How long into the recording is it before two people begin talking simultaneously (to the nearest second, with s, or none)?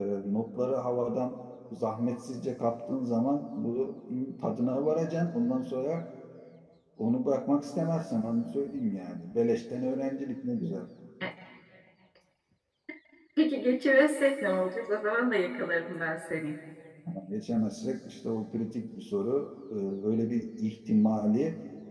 none